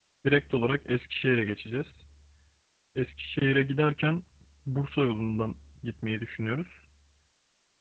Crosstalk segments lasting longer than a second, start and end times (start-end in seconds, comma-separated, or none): none